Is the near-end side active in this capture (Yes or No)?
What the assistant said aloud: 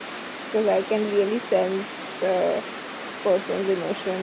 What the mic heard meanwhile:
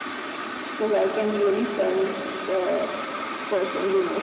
No